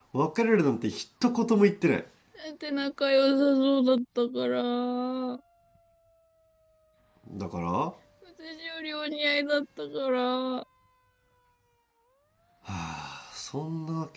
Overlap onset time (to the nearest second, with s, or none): none